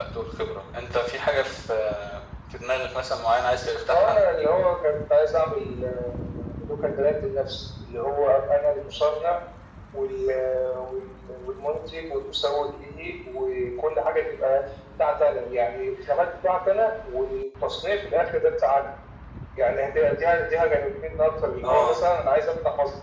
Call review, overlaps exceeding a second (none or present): none